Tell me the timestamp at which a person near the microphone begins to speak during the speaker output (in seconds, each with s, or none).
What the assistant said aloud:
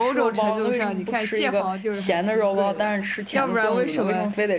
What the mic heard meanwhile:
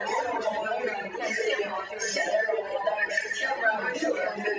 none